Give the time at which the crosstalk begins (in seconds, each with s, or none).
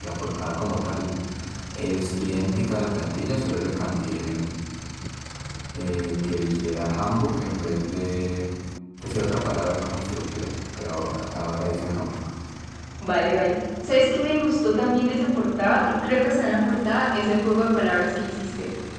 none